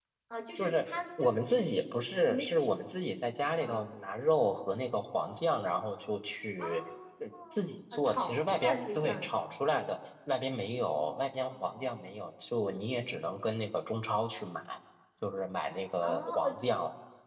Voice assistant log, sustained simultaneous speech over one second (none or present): present